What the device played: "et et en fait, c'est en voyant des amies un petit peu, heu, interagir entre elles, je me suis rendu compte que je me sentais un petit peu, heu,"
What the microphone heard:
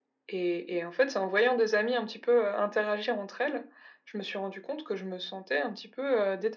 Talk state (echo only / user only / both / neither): echo only